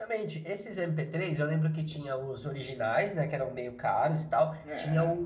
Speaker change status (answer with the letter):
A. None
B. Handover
A